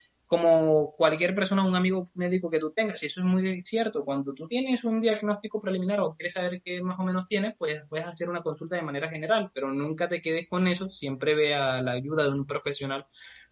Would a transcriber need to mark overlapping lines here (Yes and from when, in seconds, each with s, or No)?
No